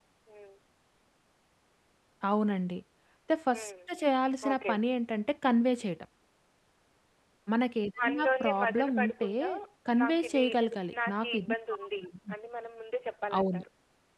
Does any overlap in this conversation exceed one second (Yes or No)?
Yes